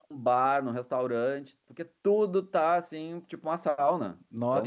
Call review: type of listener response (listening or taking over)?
taking over